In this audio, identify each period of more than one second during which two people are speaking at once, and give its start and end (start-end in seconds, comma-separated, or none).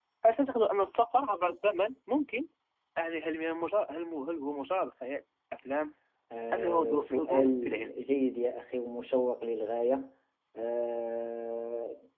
6.5-8.0